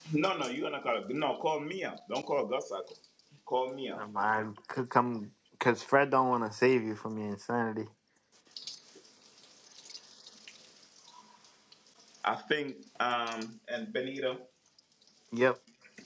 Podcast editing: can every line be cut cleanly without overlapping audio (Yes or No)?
Yes